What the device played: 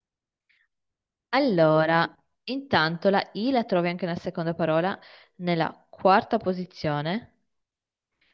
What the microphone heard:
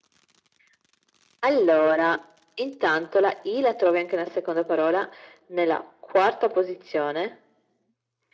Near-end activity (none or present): none